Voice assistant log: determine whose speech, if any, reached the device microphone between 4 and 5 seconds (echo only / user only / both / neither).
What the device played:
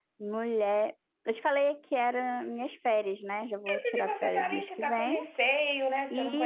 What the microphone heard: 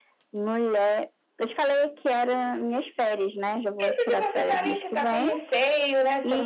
echo only